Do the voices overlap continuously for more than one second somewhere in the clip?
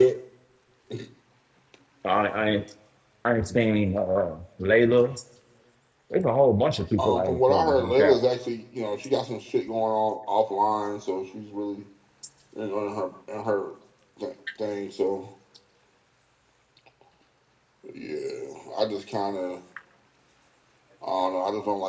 Yes, from 7.0 s

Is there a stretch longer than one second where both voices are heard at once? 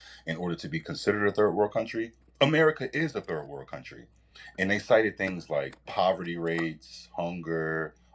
No

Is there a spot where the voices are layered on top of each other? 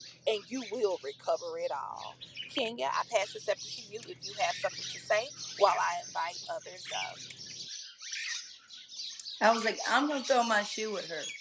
No

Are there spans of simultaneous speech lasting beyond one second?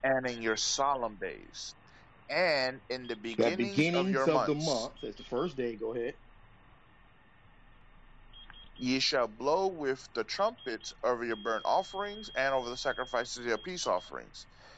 Yes, from 3.3 s

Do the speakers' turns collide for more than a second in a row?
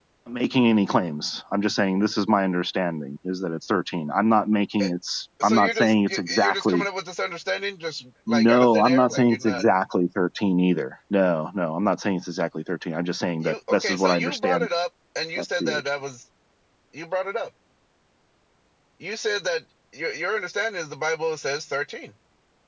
Yes, from 5.4 s

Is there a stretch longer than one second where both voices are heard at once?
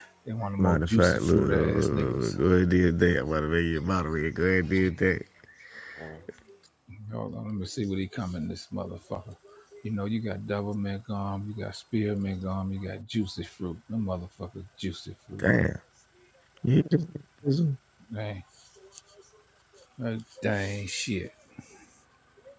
Yes, from 0.6 s

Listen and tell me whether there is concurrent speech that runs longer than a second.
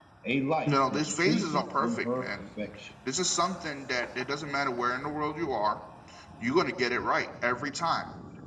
Yes, from 0.7 s

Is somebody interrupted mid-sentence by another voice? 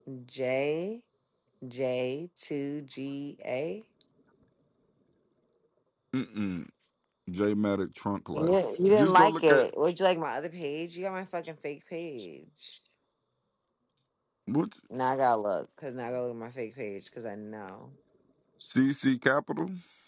Yes, from 8.3 s

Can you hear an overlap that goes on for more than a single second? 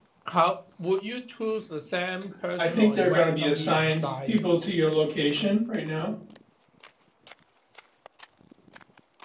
Yes, from 2.6 s

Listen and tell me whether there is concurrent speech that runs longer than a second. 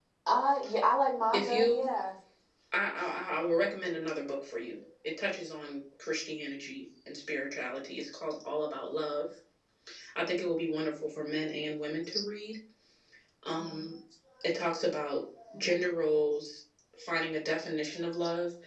No

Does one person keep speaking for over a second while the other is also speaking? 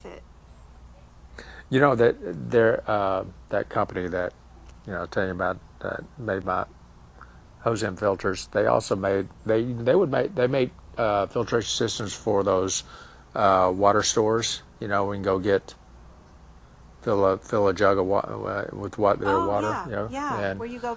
Yes, from 19.2 s

